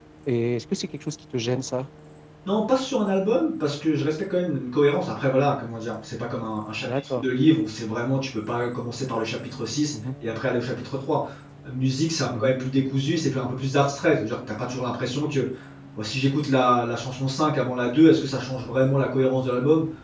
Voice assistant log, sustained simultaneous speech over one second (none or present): none